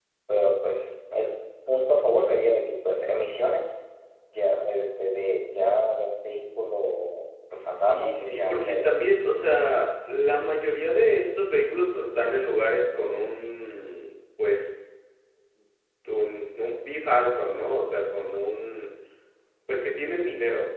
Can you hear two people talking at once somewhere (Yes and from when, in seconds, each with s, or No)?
Yes, from 7.6 s